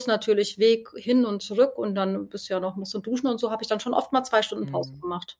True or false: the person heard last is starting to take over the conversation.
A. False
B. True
B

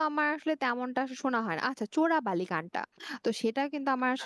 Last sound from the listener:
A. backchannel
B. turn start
A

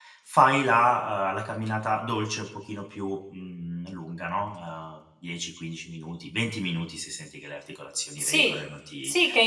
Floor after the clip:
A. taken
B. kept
A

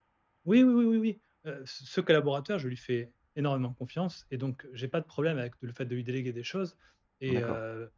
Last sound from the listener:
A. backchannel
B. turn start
A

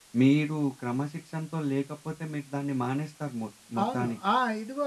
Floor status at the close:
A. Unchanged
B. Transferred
B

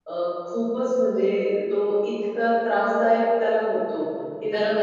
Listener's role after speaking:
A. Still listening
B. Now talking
A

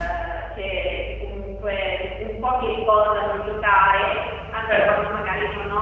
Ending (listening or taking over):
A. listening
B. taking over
A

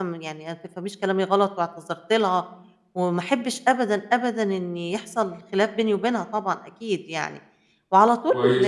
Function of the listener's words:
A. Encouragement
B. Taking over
B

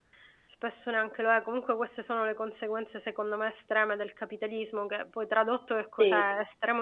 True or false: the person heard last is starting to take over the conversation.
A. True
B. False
B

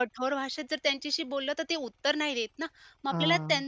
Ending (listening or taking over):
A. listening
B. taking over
A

